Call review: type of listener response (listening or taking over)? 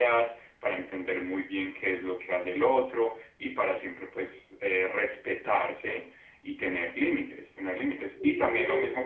listening